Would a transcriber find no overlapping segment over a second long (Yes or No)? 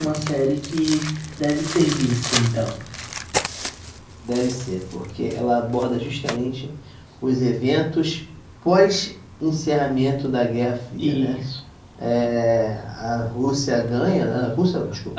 Yes